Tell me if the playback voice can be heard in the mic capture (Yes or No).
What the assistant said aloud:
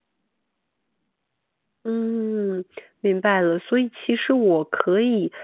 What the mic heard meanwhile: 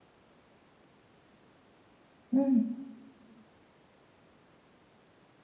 No